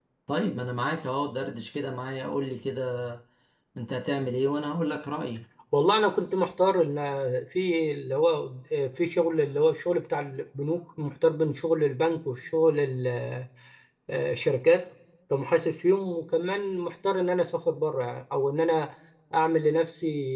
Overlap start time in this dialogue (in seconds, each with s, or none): none